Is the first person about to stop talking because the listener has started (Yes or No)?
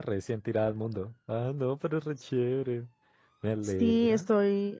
Yes